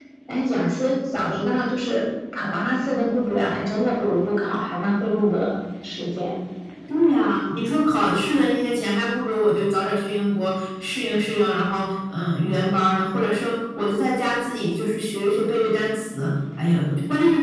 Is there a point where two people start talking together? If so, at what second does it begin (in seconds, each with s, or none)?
none